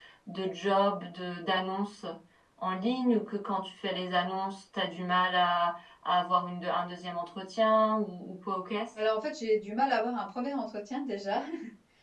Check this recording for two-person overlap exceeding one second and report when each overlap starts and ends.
none

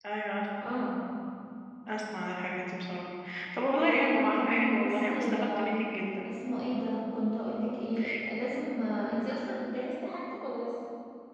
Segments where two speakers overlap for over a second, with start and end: 3.8-5.8

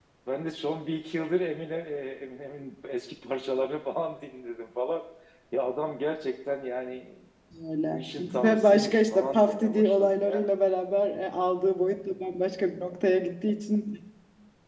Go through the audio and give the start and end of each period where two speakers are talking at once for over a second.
7.9-10.5

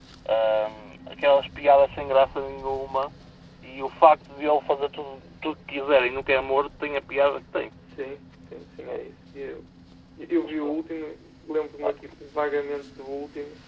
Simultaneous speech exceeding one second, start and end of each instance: none

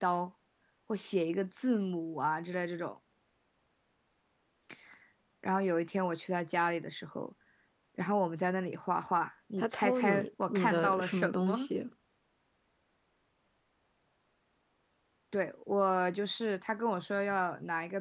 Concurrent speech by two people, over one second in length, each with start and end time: 9.6-11.7

